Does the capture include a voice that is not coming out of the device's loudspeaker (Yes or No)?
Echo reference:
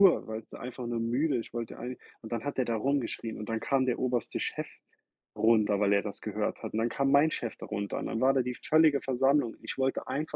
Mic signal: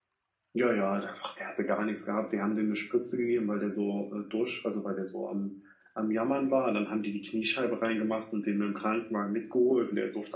Yes